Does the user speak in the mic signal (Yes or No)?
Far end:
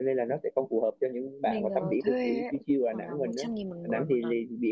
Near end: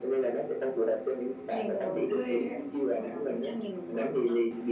No